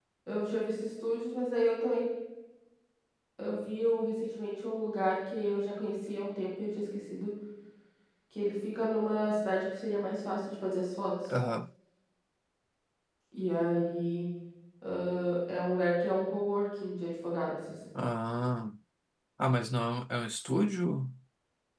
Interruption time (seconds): none

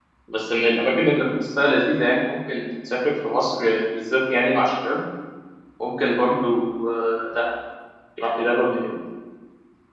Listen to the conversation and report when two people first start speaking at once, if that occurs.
none

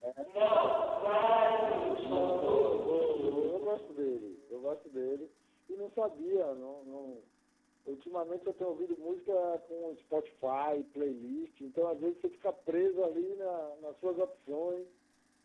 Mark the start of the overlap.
1.6 s

